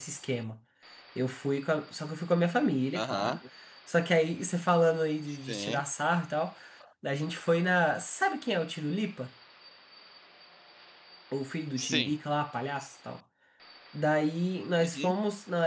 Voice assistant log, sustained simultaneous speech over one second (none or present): none